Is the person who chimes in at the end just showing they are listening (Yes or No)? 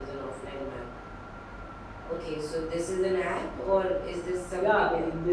No